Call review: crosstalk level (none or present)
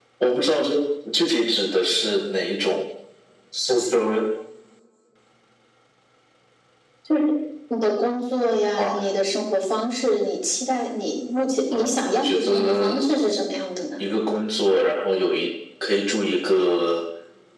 present